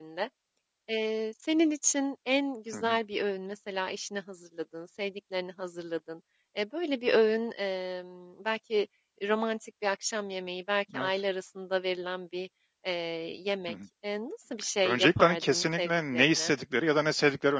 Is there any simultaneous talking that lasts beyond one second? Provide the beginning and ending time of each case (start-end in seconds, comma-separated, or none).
14.8-16.5